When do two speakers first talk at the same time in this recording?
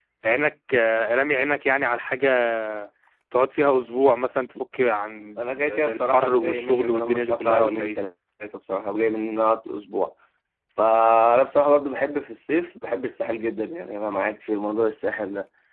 5.4 s

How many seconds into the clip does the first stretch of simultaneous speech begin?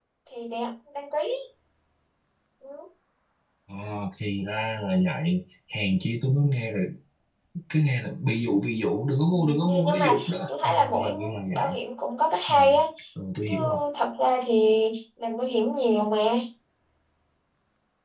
9.3 s

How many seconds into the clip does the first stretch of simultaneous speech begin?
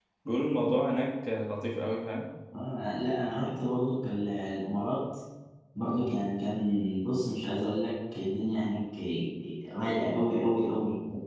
none

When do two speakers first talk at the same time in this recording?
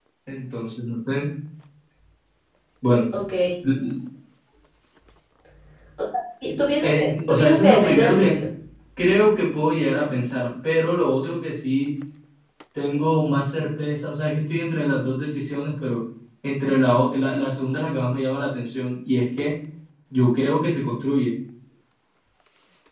6.8 s

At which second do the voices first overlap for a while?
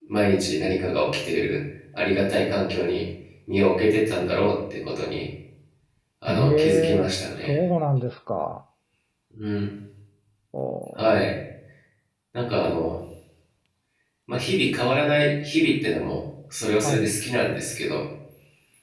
6.3 s

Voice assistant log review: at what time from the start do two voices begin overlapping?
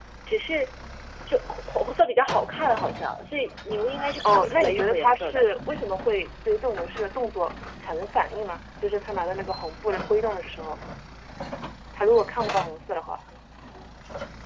4.2 s

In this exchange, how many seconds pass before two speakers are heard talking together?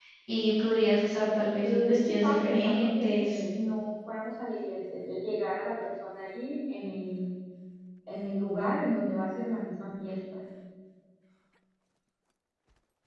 1.6 s

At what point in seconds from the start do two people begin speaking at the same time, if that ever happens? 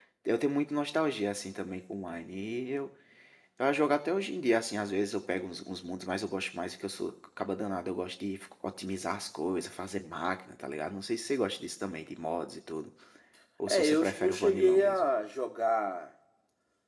13.7 s

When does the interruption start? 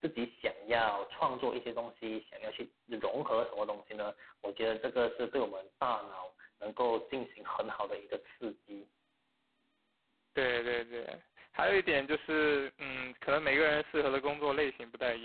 none

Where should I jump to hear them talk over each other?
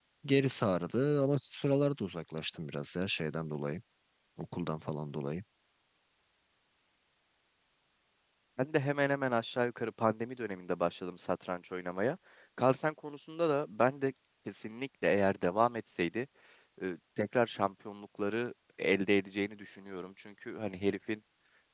none

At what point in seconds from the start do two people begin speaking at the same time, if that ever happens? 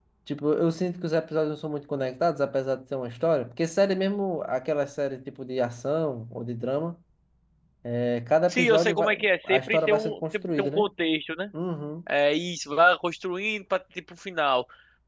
8.5 s

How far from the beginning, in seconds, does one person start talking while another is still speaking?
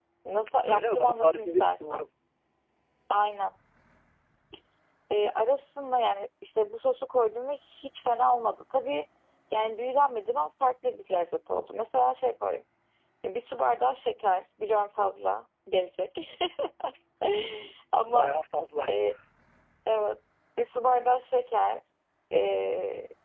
0.7 s

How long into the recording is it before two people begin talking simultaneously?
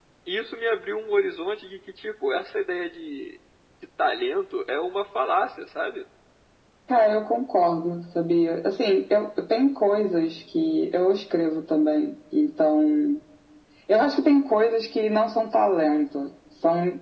none

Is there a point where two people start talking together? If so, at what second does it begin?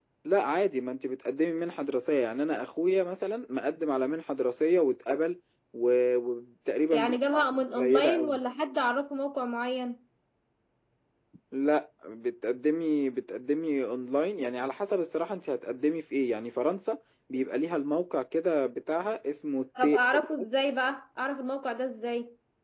6.9 s

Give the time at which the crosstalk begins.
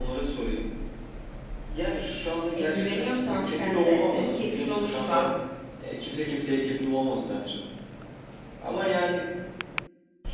2.6 s

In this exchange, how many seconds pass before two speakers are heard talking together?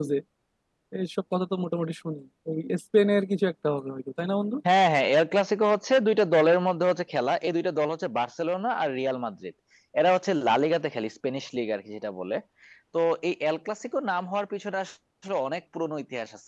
none

